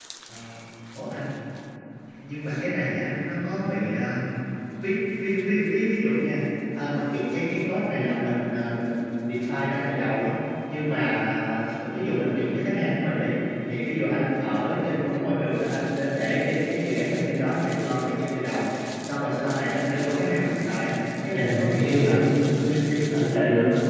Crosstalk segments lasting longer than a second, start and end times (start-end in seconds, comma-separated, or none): 21.3-23.2